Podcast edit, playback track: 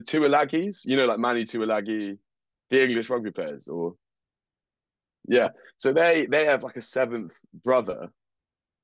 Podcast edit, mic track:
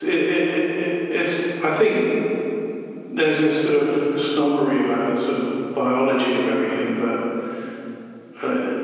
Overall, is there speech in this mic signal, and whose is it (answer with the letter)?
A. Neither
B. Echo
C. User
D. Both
C